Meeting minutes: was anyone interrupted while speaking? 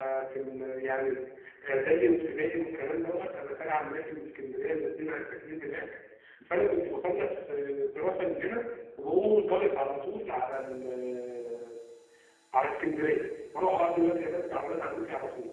No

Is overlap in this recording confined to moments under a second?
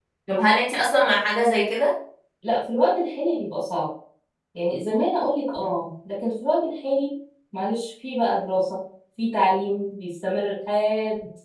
Yes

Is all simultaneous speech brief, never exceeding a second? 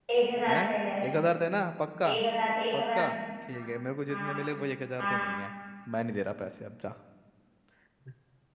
Yes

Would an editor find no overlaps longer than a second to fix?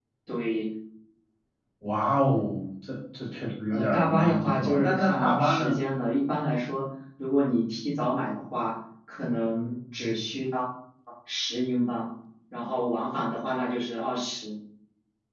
No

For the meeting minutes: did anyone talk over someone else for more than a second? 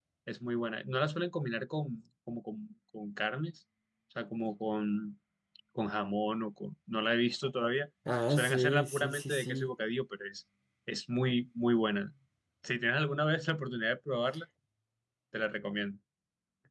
Yes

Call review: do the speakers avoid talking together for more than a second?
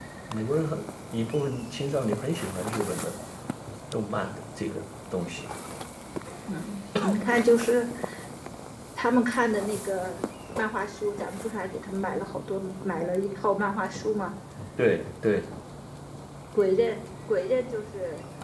Yes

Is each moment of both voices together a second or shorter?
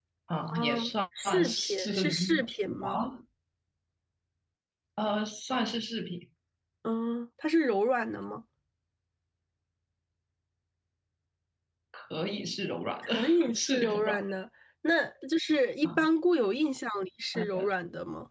No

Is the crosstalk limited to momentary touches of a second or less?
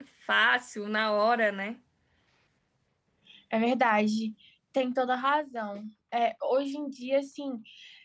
Yes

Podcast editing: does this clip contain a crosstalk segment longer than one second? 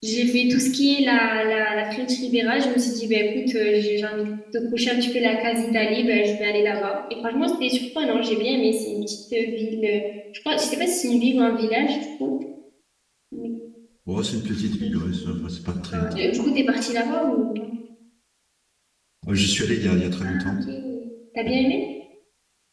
No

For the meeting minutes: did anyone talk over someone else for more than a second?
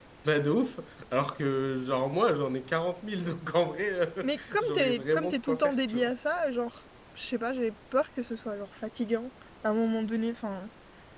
Yes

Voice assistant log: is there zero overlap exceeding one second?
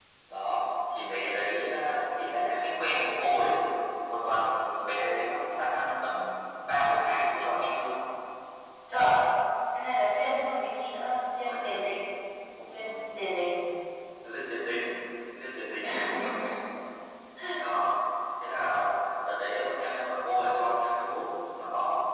Yes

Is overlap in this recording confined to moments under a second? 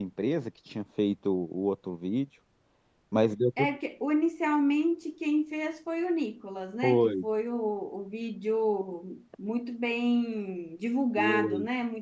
Yes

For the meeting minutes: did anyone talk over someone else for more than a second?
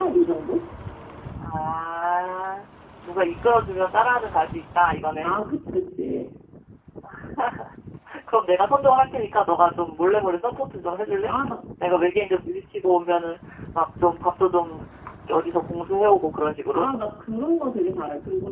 No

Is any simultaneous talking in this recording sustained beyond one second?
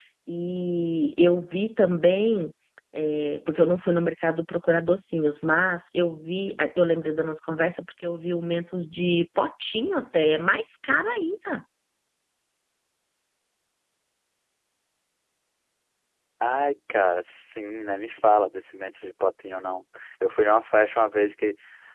No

